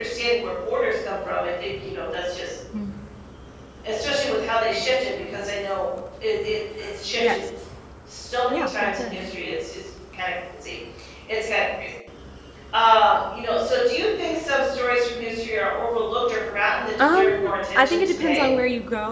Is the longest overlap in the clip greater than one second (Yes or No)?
Yes